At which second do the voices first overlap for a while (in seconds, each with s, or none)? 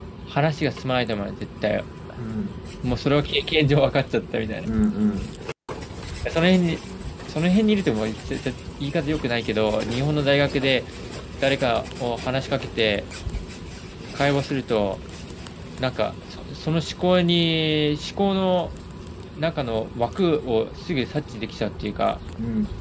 none